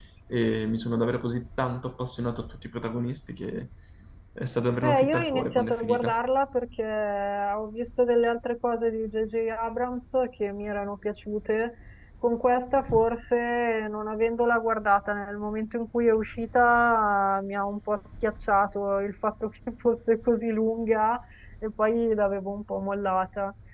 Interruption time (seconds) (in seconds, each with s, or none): 4.8 s